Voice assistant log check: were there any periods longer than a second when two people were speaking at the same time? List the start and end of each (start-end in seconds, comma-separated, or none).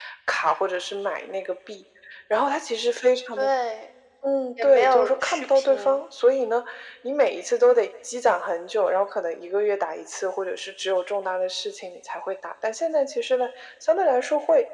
4.6-6.0